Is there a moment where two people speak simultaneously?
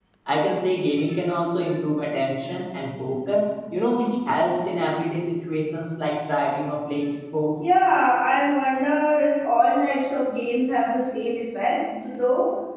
No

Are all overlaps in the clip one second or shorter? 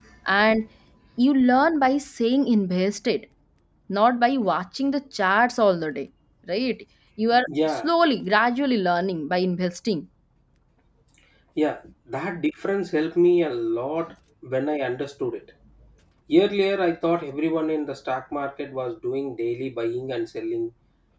Yes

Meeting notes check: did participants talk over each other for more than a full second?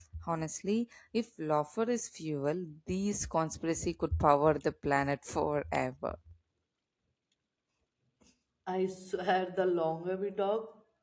No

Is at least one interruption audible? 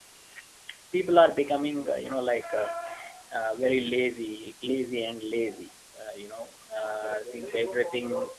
No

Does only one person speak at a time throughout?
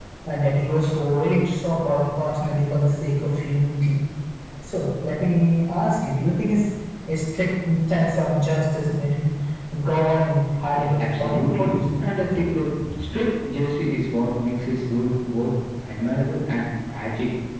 No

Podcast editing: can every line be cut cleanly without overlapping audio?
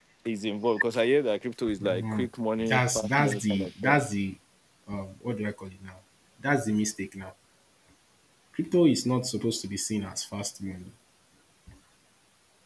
No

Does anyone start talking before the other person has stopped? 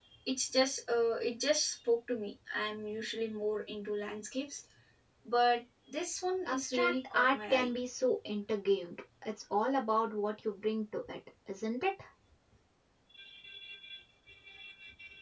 Yes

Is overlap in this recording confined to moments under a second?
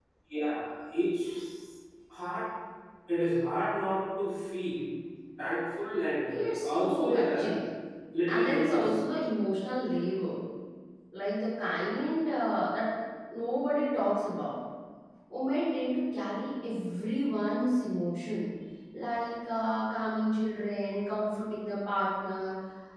No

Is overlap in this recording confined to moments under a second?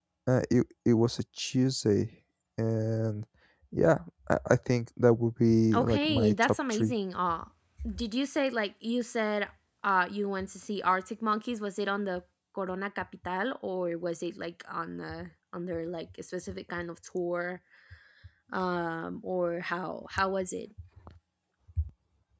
No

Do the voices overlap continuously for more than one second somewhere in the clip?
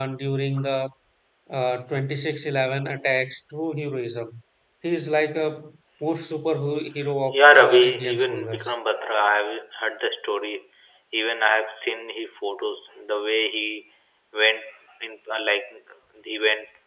Yes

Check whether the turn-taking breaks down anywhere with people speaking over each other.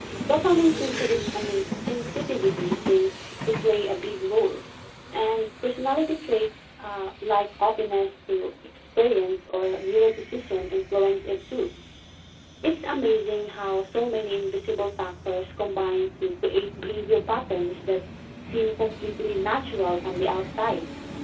No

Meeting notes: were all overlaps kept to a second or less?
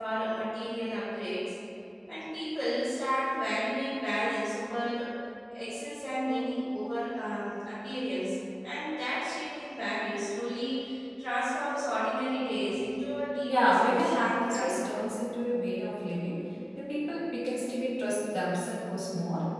No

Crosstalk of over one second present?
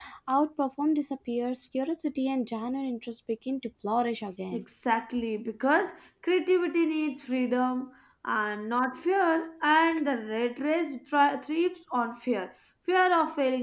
No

